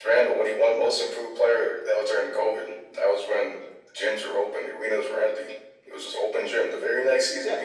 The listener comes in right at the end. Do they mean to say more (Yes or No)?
Yes